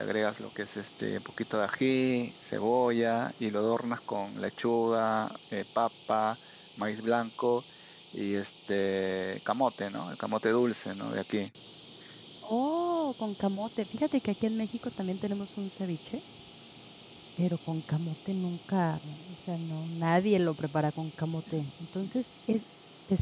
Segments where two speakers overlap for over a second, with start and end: none

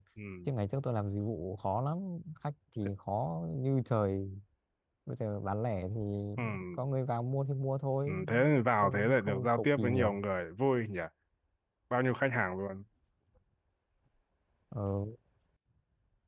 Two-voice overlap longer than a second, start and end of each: 8.8-10.2

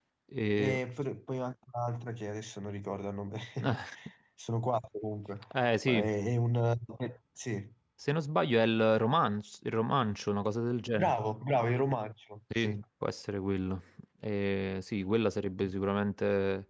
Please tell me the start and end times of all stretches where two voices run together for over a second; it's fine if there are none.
none

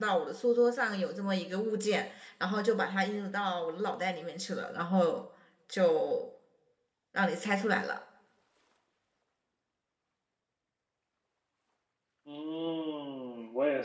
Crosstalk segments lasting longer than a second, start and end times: none

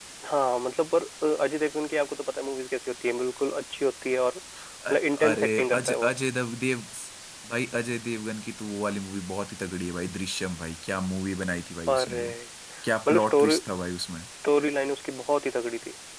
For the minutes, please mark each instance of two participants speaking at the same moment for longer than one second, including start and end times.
4.9-6.1

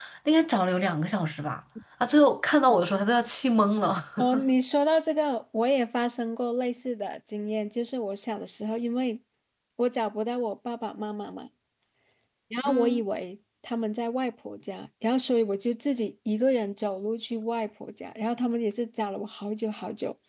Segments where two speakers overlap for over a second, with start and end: none

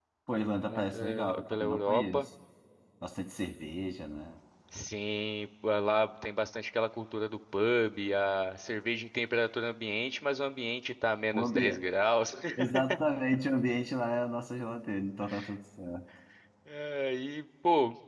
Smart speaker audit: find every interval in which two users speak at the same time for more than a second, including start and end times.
0.7-2.3

